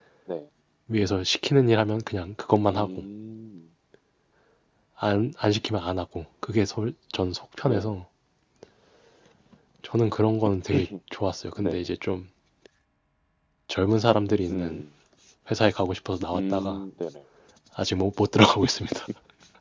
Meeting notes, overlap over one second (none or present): none